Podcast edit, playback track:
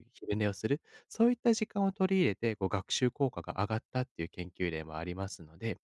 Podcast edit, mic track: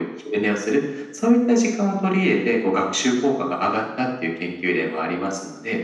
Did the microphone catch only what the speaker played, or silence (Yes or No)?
Yes